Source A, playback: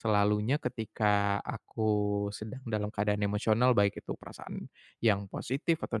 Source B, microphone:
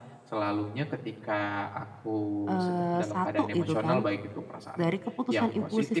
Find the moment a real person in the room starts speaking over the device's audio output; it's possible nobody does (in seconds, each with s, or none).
2.5 s